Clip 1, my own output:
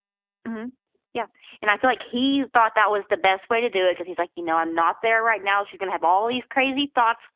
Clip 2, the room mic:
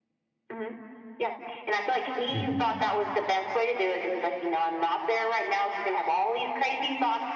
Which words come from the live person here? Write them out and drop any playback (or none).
Mhm.